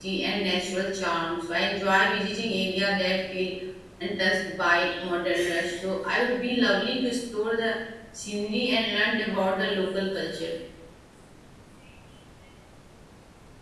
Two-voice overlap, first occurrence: none

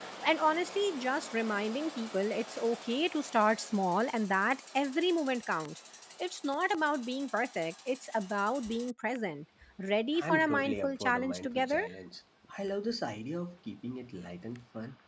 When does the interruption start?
10.1 s

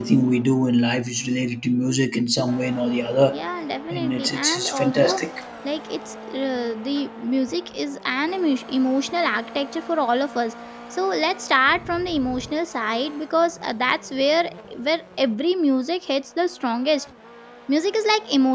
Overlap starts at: 3.9 s

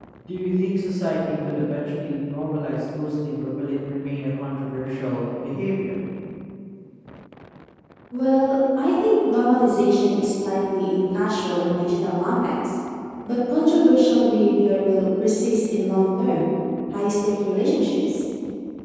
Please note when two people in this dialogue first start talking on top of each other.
none

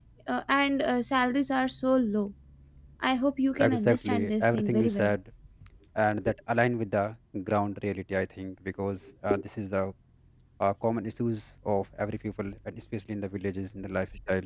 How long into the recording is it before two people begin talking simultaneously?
3.6 s

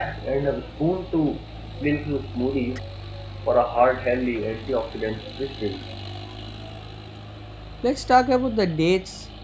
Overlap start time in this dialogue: none

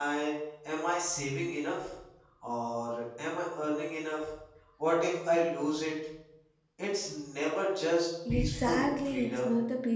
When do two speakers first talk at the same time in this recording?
8.2 s

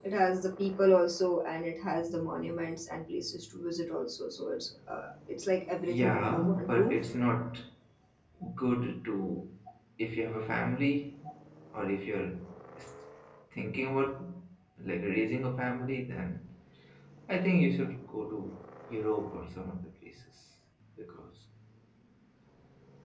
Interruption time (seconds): 5.7 s

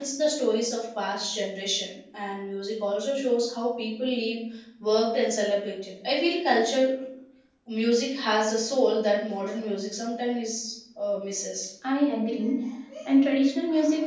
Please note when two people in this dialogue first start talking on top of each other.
none

